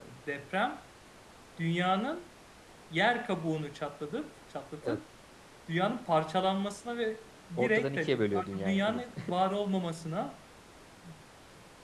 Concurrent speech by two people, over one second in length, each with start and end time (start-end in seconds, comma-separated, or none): 7.6-9.1